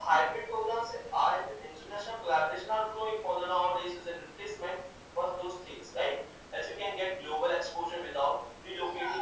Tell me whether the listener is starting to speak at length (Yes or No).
No